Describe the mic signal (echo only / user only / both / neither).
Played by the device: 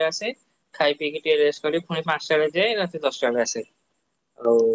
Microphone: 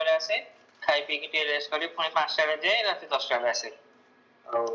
echo only